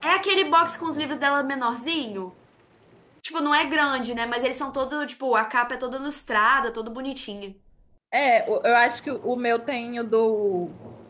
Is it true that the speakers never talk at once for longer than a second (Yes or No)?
Yes